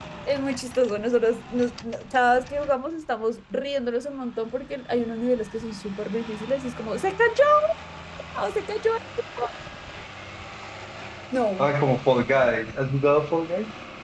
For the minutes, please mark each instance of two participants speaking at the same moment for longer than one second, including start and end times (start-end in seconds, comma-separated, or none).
none